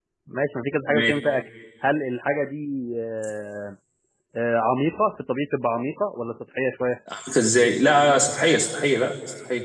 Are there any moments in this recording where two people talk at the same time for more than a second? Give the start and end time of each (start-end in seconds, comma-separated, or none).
none